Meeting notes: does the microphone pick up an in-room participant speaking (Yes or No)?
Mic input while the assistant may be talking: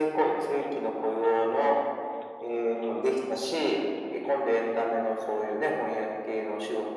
No